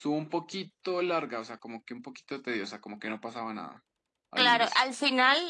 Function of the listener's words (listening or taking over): taking over